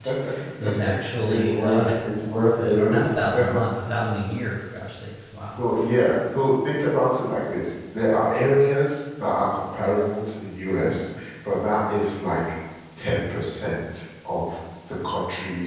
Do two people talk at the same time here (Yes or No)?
Yes